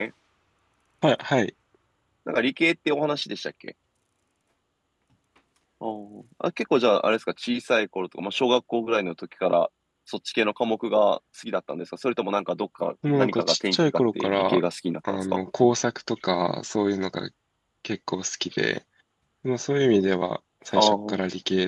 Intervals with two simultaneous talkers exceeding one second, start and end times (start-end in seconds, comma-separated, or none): 13.1-14.6